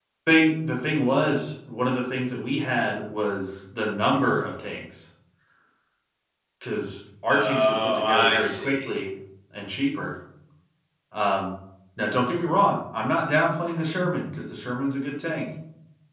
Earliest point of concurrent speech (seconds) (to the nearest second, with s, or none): 7 s